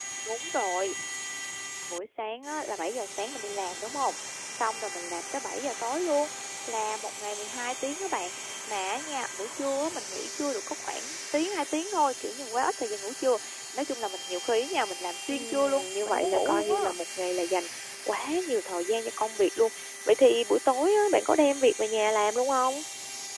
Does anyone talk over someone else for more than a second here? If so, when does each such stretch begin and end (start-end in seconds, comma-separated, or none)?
15.3-16.9